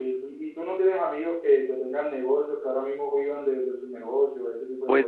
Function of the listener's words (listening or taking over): taking over